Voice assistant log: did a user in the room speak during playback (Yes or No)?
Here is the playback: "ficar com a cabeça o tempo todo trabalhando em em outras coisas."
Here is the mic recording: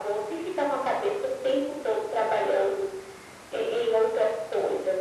No